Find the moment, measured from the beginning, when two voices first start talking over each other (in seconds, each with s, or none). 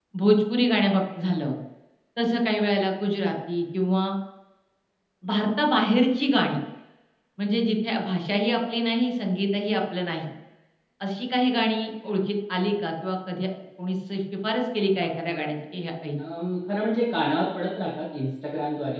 none